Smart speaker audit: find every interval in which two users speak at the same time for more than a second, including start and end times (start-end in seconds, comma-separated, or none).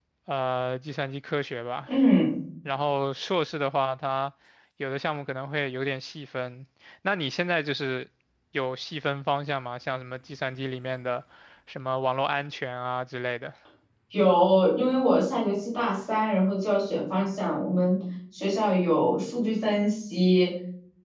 none